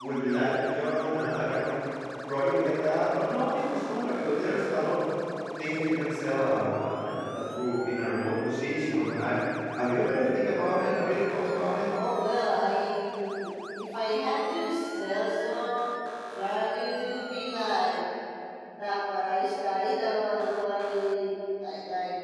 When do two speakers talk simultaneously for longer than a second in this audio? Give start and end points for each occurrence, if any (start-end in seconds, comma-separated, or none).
none